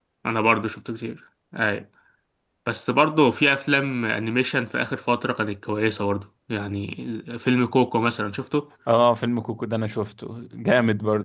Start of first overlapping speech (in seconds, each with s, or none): none